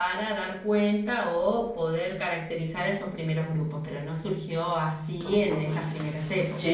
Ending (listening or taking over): taking over